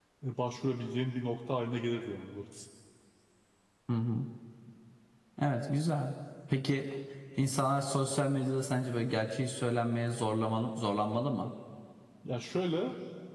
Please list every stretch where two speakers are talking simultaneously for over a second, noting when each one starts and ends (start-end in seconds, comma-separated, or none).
none